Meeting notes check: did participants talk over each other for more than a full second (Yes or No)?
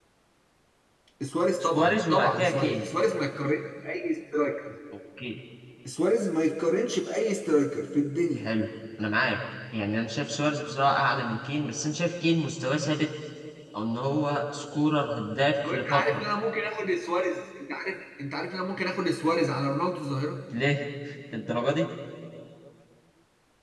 Yes